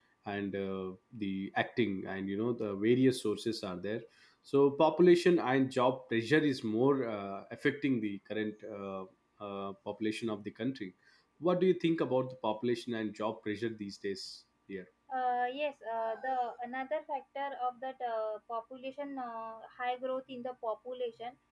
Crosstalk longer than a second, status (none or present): none